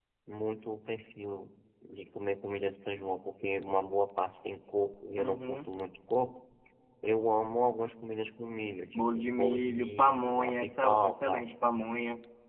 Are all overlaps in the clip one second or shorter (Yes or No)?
No